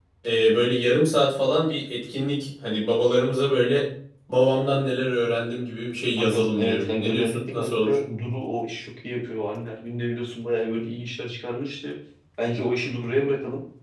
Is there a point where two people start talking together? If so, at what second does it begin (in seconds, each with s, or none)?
6.2 s